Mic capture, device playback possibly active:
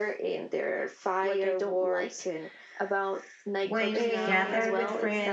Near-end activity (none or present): present